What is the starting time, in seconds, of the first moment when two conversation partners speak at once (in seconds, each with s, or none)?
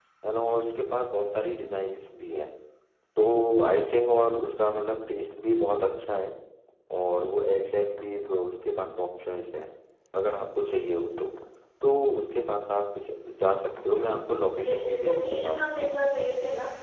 14.5 s